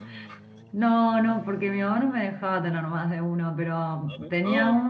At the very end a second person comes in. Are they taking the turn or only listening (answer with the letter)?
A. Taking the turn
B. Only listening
B